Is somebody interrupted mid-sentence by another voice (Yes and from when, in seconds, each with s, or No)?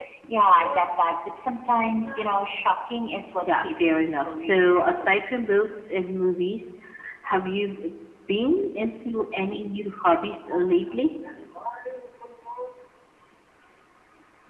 Yes, from 3.5 s